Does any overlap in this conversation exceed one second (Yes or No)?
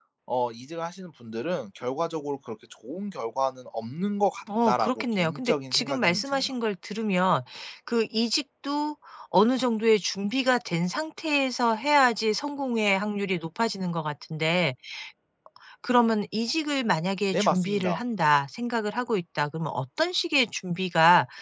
Yes